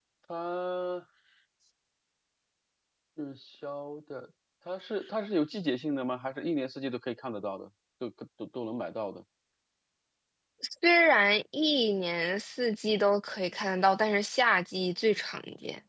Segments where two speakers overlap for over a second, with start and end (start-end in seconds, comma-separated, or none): none